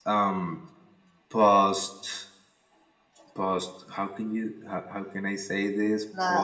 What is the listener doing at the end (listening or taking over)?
taking over